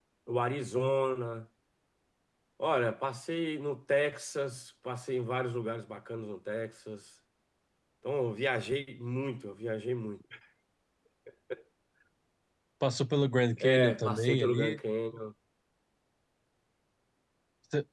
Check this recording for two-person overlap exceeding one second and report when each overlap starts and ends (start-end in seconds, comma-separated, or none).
13.6-14.8